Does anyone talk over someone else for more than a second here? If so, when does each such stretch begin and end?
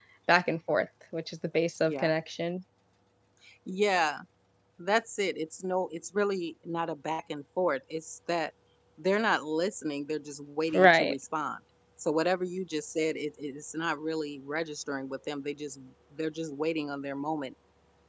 none

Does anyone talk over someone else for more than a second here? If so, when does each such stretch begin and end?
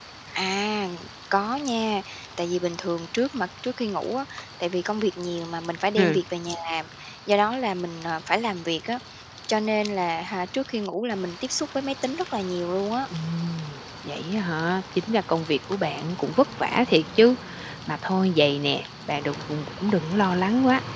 none

